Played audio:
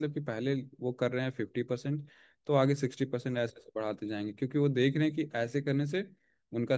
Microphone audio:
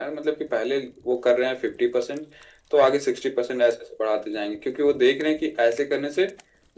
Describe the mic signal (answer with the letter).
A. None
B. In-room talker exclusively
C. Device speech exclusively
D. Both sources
C